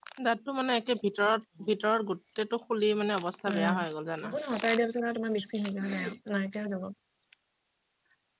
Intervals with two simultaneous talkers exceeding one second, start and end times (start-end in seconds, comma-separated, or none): none